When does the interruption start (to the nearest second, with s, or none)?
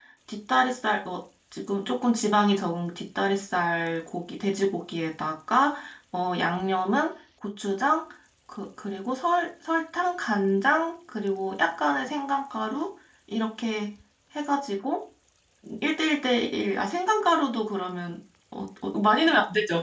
none